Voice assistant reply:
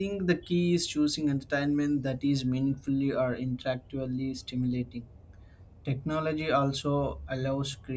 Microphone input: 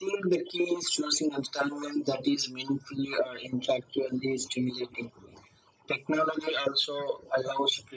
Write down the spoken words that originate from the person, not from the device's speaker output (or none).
none